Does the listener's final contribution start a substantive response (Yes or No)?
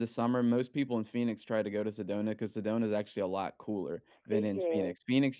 No